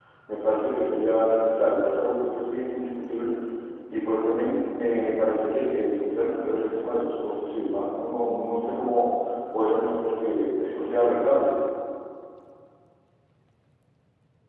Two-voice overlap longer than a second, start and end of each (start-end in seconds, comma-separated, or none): none